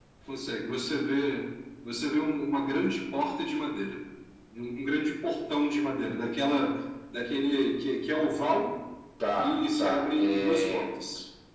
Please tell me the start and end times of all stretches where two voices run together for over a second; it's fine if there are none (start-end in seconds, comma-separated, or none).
9.4-10.9